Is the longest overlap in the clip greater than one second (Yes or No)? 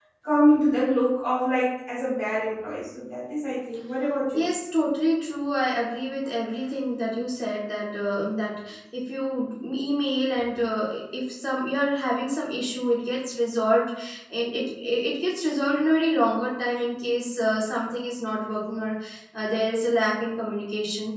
No